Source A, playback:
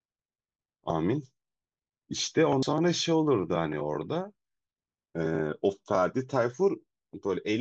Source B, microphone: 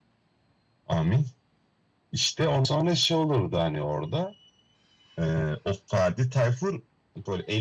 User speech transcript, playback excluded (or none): none